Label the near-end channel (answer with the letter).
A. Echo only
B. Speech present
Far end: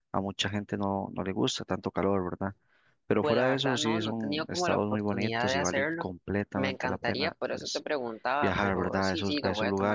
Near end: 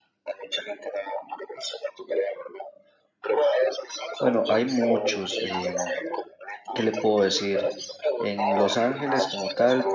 B